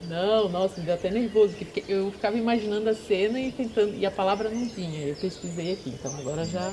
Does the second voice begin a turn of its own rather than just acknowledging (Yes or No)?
Yes